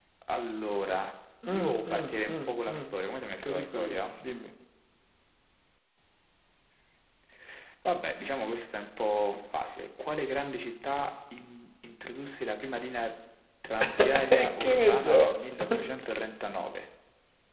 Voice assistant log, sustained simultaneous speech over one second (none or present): present